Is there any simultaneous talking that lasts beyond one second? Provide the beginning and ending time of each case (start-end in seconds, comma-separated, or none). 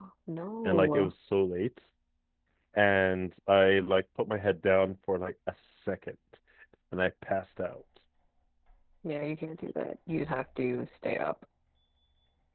none